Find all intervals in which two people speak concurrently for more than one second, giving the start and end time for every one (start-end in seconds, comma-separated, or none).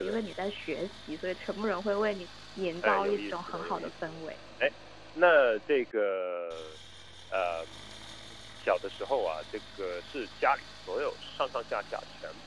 2.8-4.2